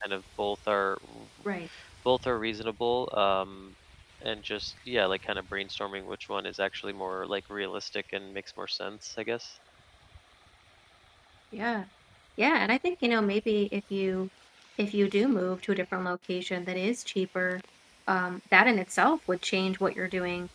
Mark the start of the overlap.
none

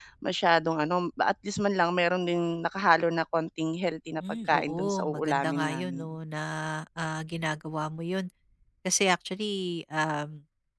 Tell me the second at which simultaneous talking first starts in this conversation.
4.5 s

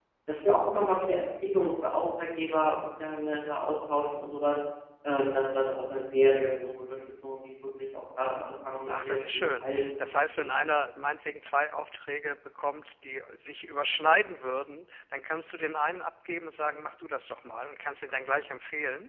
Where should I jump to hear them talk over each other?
8.9 s

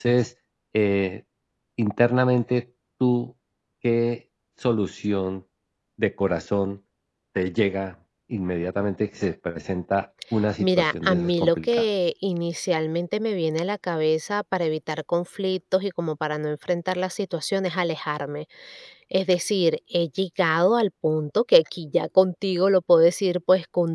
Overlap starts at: 10.6 s

